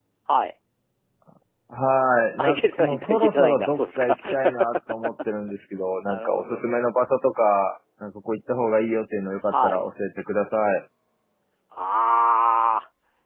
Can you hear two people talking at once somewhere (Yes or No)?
Yes